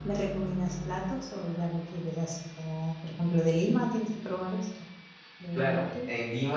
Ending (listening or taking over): taking over